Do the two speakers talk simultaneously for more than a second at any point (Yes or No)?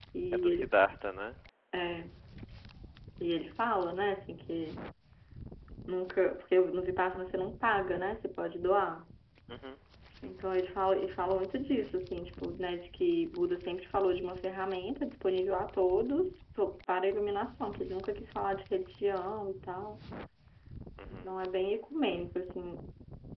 No